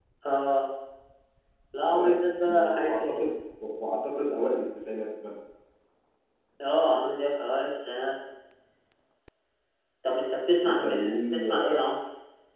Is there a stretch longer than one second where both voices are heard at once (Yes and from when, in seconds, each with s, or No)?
Yes, from 1.9 s